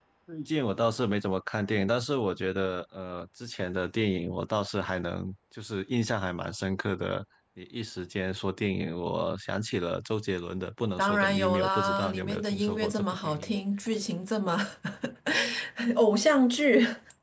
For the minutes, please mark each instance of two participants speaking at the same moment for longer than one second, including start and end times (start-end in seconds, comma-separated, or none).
11.0-13.5